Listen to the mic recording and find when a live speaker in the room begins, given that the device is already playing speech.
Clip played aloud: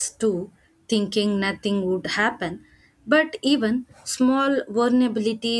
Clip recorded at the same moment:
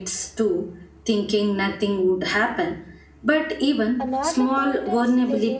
4.0 s

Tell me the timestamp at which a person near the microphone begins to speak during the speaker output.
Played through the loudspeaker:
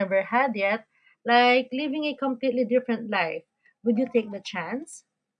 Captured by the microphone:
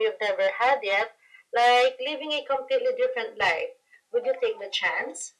none

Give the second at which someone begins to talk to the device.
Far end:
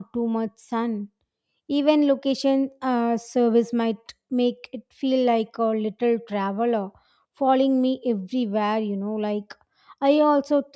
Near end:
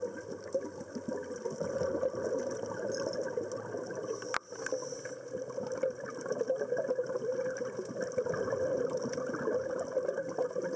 none

